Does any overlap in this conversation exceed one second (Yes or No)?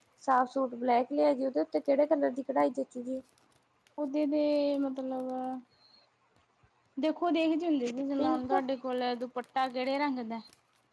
No